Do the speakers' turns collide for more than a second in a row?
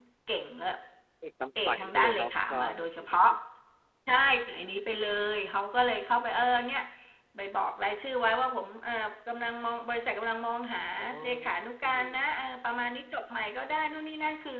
Yes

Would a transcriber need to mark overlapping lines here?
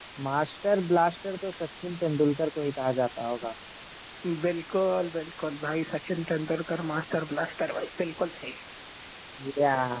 No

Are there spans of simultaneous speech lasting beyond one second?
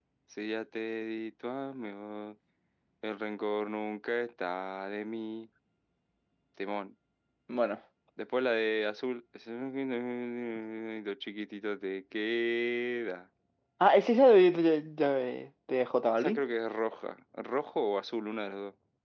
No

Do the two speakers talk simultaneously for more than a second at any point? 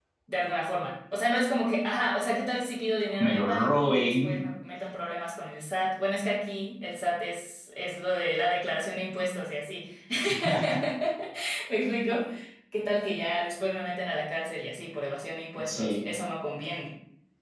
Yes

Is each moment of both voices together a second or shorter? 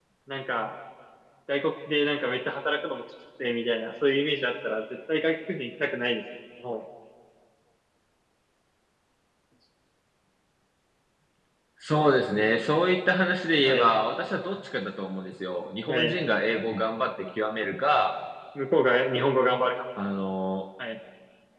Yes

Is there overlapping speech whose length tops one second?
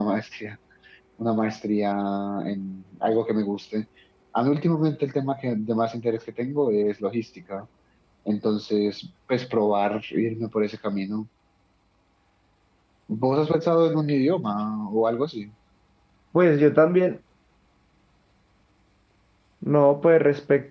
No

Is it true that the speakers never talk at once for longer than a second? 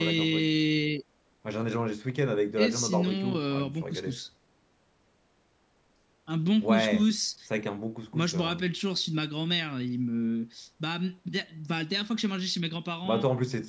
No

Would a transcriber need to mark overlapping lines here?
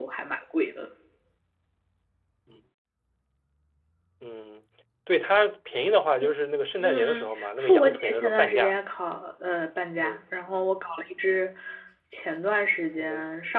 Yes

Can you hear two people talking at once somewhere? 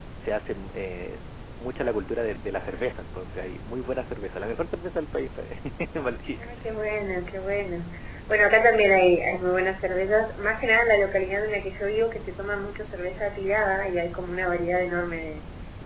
No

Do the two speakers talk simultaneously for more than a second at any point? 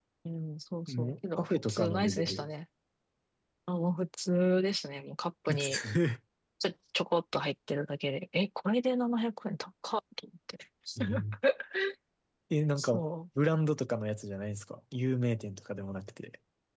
Yes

